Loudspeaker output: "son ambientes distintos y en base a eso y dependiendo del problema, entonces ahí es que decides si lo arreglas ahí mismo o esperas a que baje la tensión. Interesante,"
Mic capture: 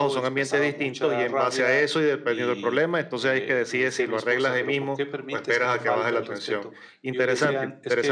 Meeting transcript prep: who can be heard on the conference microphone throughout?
both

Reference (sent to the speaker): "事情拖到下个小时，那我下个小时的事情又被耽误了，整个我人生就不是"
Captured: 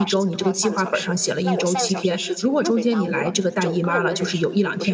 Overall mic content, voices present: both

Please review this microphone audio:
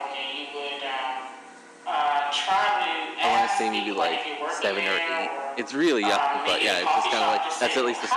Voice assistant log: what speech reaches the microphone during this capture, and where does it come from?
both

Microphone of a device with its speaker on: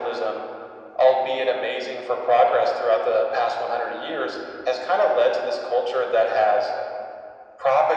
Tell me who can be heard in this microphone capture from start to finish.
echo only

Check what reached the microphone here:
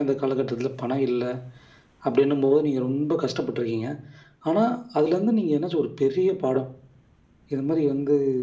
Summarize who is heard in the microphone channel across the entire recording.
echo only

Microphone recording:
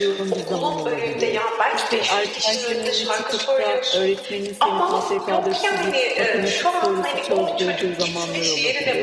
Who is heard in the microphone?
both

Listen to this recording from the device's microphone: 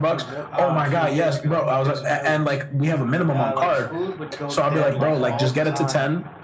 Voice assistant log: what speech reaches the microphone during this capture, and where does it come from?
both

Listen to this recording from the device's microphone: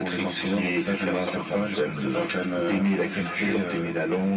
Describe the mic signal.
echo only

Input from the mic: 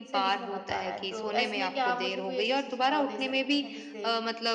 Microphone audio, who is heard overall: both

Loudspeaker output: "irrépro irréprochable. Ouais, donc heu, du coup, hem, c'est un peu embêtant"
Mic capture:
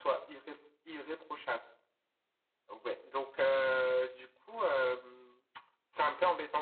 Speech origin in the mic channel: echo only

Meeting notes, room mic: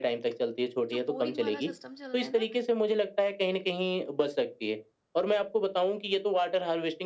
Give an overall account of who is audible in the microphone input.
both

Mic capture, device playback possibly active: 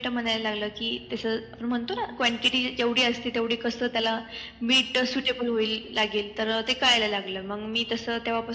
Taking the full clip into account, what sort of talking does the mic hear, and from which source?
echo only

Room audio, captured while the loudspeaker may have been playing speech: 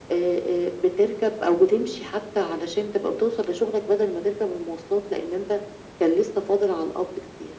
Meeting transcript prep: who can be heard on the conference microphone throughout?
echo only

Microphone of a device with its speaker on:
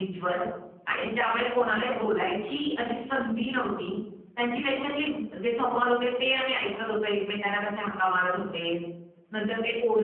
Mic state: echo only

